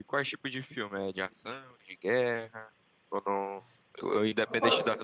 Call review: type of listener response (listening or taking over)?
listening